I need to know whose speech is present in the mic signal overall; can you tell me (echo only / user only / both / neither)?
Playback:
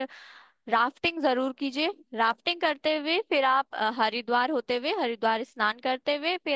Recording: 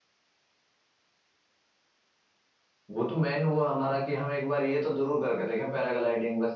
user only